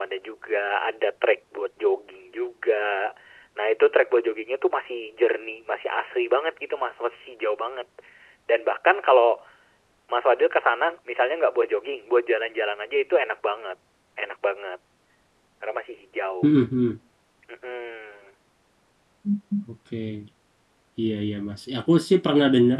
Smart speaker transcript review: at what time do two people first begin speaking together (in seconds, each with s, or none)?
none